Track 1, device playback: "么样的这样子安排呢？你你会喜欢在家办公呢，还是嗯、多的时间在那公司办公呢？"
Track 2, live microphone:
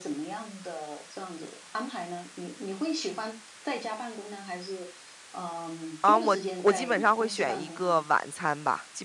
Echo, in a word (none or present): present